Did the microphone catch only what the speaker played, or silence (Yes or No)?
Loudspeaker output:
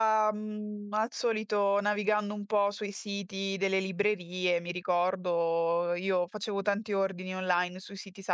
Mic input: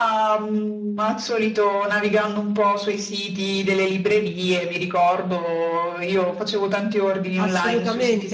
No